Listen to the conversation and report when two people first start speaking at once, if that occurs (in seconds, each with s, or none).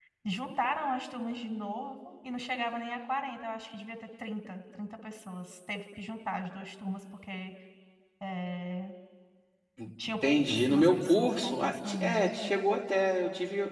10.2 s